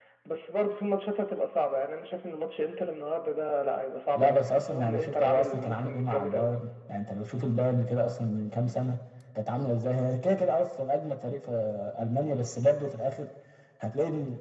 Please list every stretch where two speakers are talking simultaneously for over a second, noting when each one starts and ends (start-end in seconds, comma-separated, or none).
4.1-6.5